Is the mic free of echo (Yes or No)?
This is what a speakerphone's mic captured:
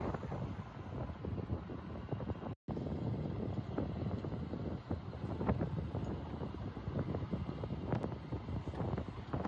Yes